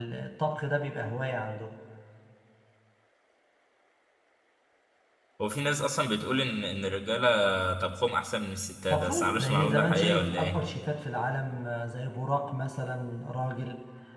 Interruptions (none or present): present